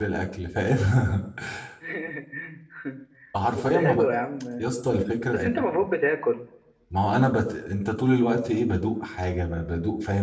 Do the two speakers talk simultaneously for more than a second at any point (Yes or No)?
No